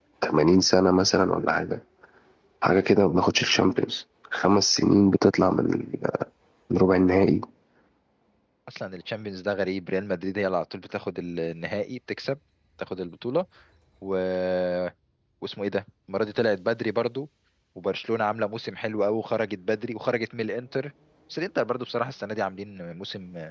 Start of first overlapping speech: none

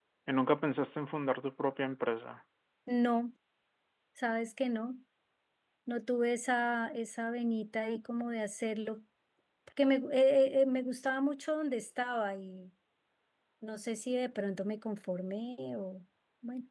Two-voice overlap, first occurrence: none

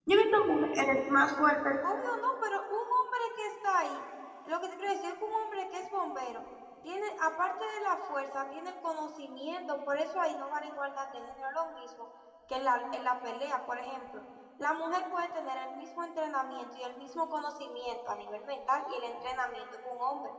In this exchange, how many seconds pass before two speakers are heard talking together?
none

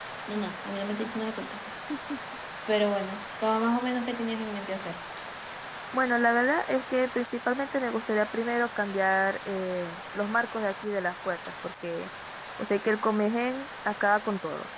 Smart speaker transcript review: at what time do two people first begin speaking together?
none

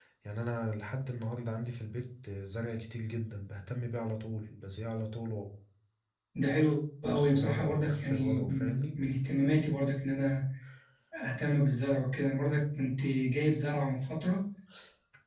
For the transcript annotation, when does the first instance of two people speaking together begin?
7 s

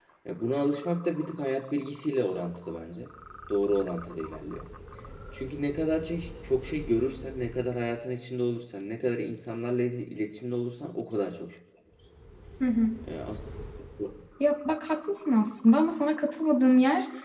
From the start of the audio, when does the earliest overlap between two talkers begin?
none

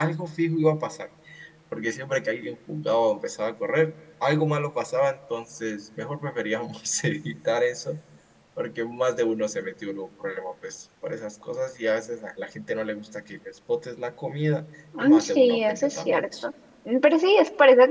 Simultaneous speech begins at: 15 s

